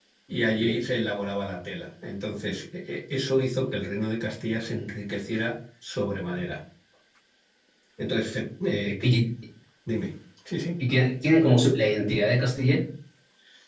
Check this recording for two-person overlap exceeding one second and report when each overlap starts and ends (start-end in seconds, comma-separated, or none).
none